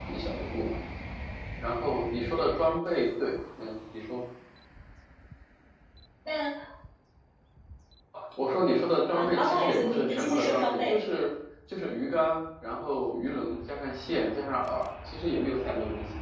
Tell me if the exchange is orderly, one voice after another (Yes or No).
No